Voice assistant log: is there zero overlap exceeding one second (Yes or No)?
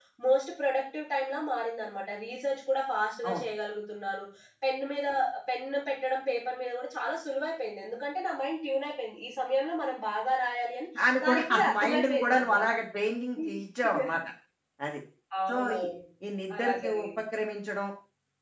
No